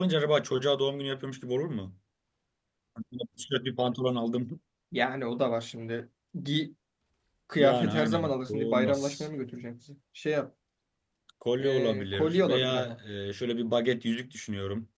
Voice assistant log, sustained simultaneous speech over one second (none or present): present